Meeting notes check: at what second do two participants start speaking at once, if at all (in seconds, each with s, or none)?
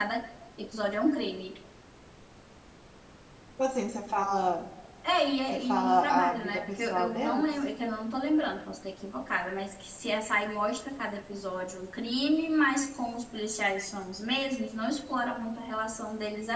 5.5 s